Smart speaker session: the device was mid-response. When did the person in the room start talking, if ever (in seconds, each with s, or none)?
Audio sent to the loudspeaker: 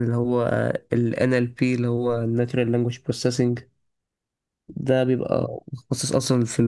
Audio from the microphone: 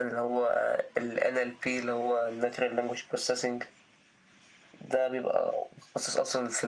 none